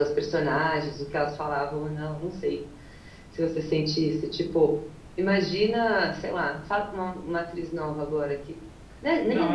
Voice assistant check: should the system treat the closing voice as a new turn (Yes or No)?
Yes